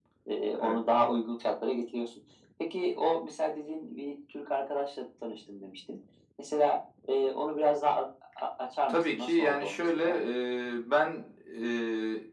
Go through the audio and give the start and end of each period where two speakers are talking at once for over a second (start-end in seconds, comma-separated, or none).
8.9-10.2